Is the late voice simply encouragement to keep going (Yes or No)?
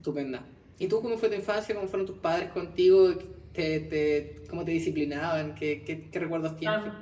No